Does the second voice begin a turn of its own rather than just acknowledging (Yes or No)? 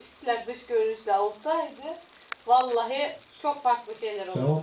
Yes